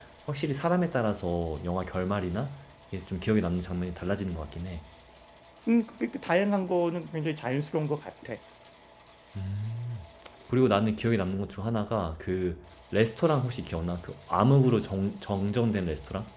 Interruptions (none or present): none